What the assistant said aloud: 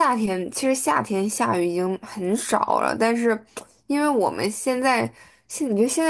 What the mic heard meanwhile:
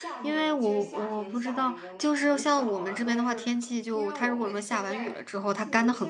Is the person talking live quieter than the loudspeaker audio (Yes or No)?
No